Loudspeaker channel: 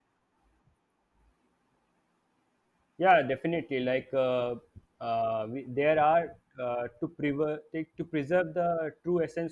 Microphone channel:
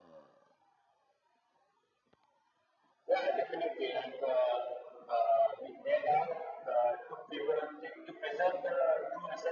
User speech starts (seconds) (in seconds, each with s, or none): none